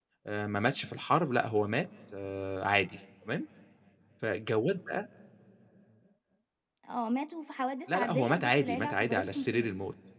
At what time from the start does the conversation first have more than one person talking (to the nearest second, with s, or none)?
8 s